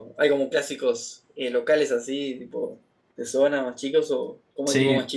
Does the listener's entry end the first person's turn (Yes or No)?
Yes